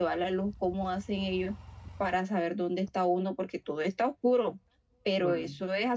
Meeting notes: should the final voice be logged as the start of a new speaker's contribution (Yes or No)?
No